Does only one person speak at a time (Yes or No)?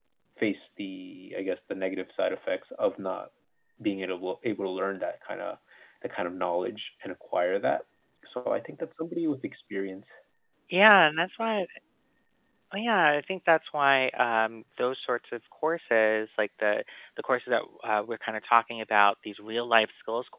Yes